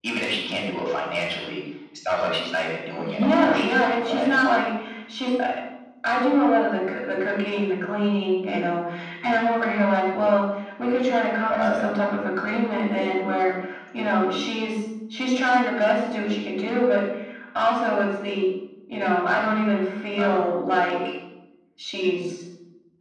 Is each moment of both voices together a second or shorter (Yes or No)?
No